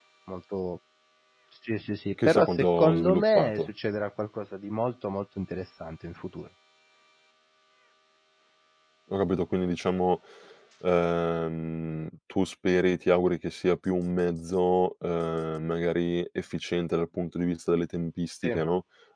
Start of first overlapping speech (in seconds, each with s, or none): 2.2 s